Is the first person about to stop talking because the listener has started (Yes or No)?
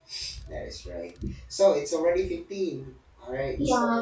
Yes